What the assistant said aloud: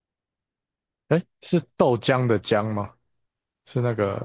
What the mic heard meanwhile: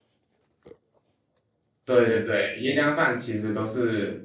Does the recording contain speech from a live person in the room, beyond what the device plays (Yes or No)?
Yes